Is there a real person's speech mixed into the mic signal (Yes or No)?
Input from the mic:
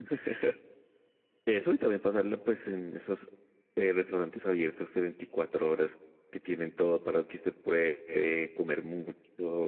Yes